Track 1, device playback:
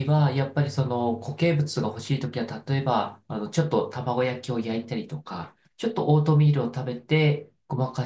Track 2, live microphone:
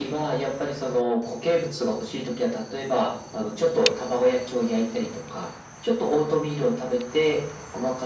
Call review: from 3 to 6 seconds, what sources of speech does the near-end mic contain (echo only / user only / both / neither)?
echo only